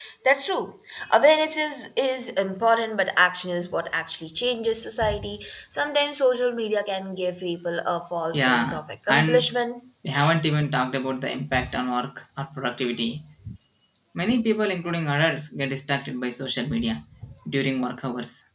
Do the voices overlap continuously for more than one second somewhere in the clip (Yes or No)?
Yes